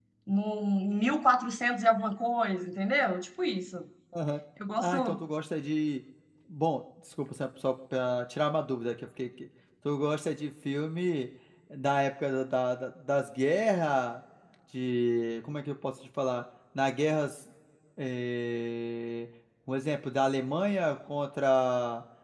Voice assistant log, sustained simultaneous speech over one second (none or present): none